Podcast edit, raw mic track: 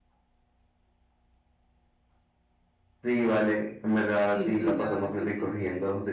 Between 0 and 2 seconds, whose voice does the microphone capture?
neither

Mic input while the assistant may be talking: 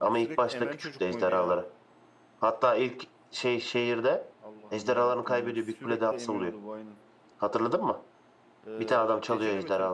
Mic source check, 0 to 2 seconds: both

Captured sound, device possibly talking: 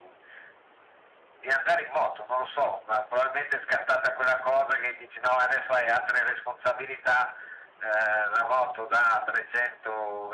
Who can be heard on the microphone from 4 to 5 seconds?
echo only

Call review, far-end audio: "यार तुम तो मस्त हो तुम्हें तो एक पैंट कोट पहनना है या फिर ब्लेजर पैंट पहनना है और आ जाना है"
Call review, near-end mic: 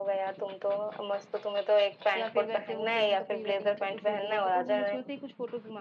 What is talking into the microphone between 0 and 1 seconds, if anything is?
echo only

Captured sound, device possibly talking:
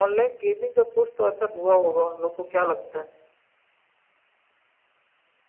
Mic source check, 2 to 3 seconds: echo only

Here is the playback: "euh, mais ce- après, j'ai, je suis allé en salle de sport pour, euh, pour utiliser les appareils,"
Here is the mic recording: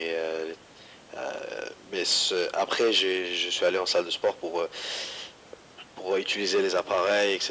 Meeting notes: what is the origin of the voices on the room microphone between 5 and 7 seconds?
echo only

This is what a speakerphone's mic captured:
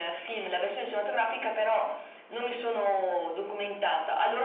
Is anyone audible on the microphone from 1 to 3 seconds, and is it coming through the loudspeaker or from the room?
echo only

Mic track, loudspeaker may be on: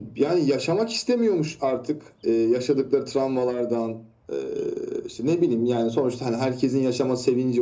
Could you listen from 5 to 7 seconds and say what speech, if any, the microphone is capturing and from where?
echo only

